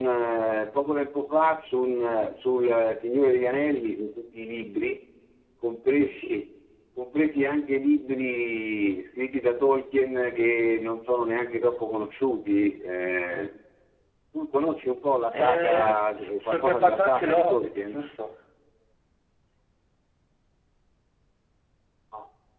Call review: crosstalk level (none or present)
present